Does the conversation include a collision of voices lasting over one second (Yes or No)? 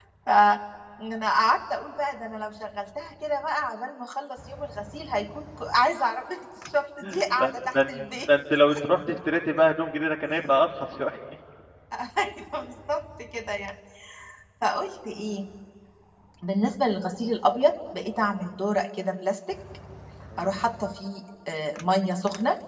No